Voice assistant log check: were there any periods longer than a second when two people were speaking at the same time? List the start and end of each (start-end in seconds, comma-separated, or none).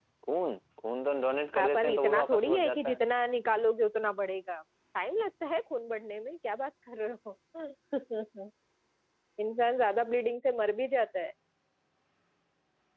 1.6-3.0